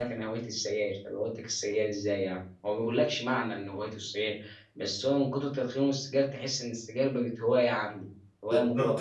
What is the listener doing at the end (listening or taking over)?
taking over